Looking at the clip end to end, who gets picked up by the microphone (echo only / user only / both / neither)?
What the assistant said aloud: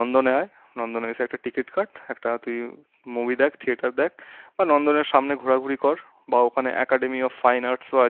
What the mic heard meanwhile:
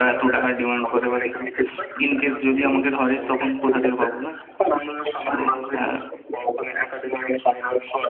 both